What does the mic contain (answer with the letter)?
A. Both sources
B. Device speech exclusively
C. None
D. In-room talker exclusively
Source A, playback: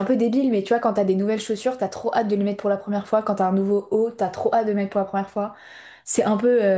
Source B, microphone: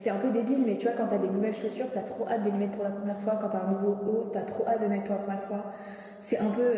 B